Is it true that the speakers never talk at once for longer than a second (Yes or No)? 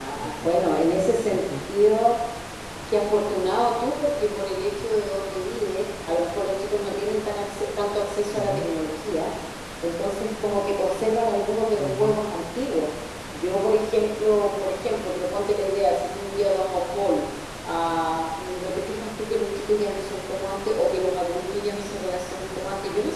Yes